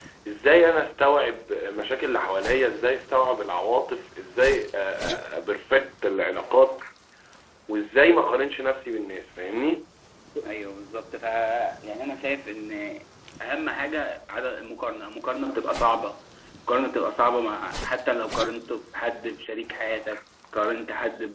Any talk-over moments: No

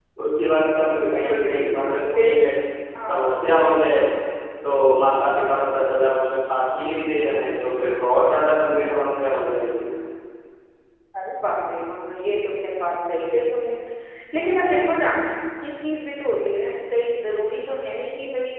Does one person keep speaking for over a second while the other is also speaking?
Yes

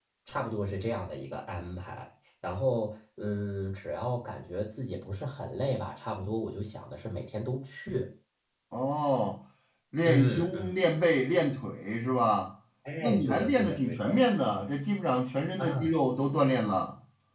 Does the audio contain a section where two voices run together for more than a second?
Yes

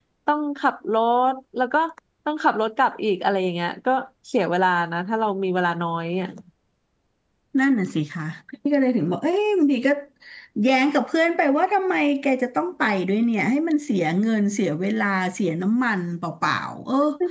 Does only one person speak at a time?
Yes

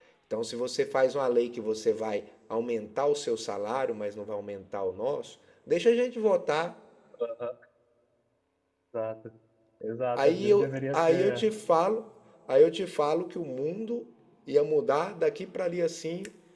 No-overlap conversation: No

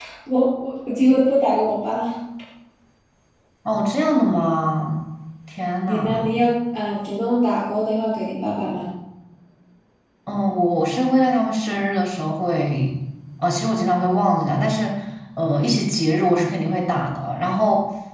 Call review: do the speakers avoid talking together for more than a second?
Yes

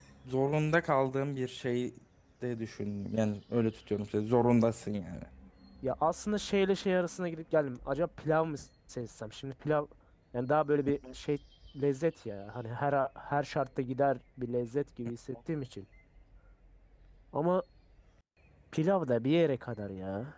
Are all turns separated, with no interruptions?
Yes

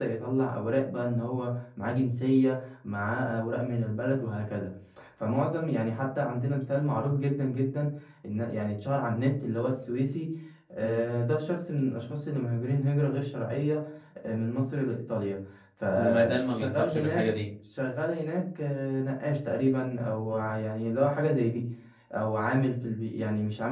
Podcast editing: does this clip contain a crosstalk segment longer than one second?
Yes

